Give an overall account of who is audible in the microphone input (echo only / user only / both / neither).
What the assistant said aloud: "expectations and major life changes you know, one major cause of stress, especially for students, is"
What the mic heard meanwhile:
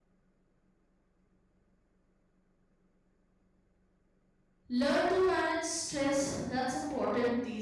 user only